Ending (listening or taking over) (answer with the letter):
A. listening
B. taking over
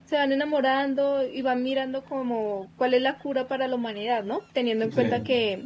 A